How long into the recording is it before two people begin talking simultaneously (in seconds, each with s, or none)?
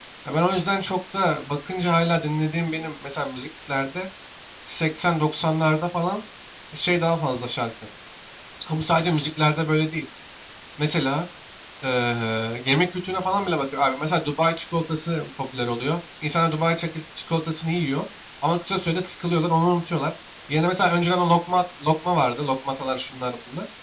none